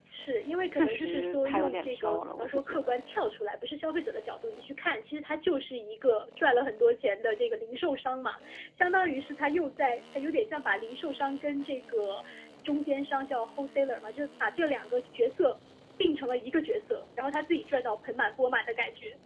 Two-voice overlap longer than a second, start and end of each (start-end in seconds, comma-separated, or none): 0.7-2.9